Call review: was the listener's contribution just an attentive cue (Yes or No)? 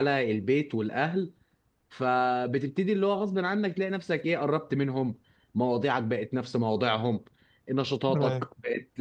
Yes